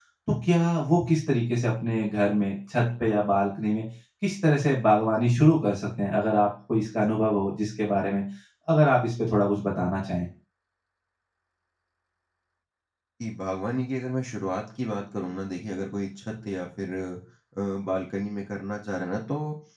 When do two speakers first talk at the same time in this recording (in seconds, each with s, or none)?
none